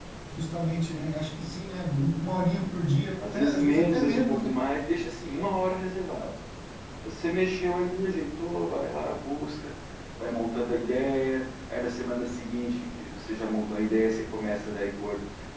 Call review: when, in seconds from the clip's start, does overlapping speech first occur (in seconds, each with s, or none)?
3.2 s